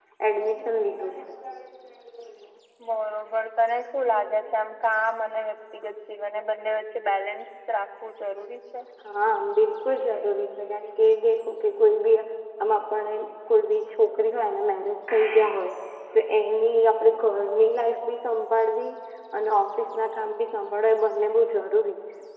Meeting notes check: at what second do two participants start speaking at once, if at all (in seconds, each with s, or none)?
none